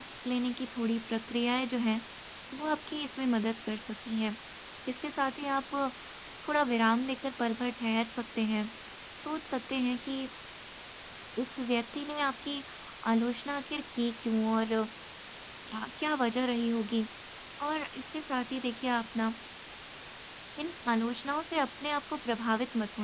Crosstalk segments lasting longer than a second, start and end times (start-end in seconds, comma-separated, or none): none